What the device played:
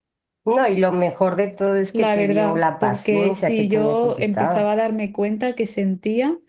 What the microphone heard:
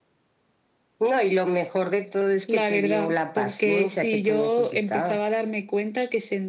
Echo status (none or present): present